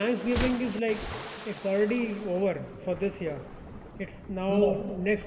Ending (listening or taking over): listening